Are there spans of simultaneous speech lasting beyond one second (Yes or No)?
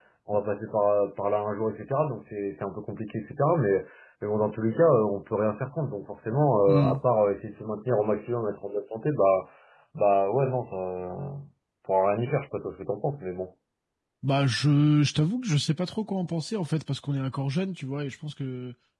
No